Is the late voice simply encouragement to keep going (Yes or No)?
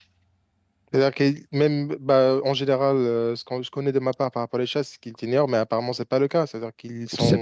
No